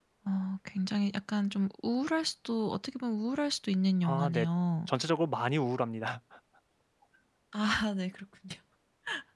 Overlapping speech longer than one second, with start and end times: none

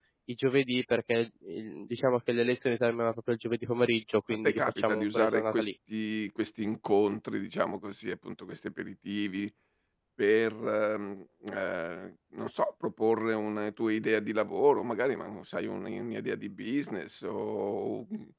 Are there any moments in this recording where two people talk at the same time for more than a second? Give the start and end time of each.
4.3-5.7

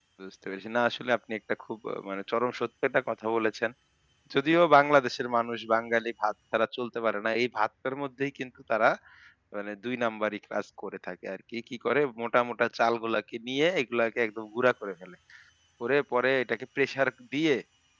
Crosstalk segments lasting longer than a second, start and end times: none

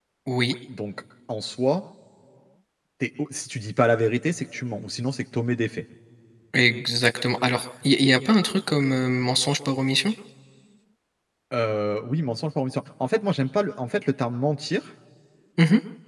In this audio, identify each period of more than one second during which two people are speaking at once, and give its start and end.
none

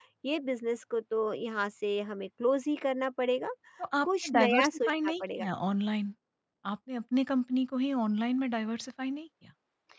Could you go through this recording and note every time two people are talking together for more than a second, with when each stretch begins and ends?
4.0-5.5

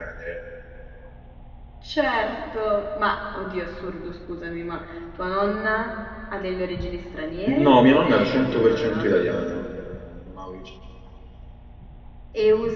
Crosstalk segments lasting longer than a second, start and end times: 7.7-9.1

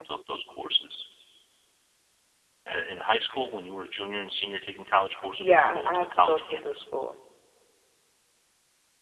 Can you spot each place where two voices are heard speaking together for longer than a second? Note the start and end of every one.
5.4-6.8

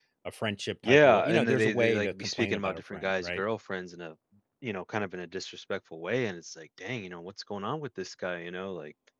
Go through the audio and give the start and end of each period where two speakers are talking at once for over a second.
0.8-3.4

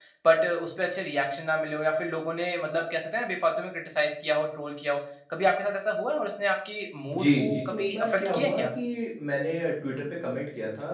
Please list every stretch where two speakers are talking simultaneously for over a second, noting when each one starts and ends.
7.2-8.6

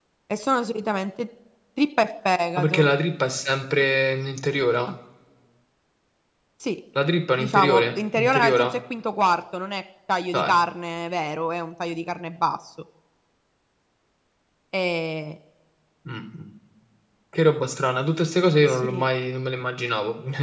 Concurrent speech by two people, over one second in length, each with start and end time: 7.4-8.7

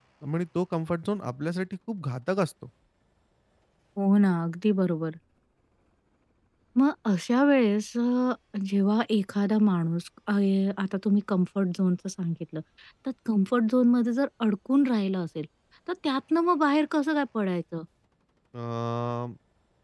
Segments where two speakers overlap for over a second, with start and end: none

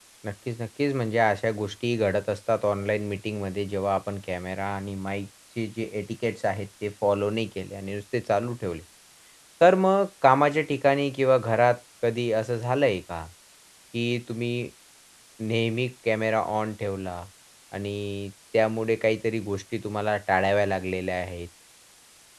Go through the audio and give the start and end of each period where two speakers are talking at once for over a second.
none

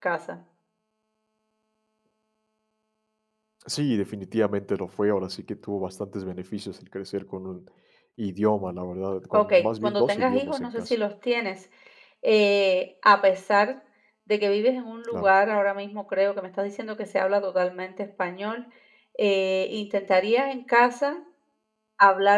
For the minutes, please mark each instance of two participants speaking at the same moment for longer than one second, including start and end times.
9.3-10.9

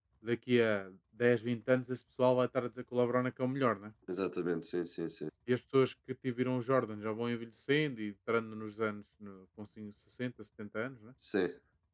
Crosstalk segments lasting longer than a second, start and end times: none

